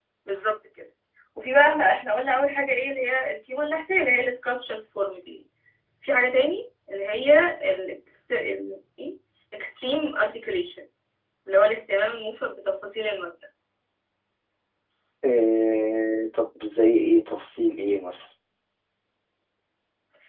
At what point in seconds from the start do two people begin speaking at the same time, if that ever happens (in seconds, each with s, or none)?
none